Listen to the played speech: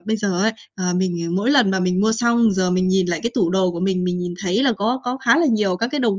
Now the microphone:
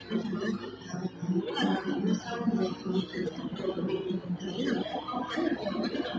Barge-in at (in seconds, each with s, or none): none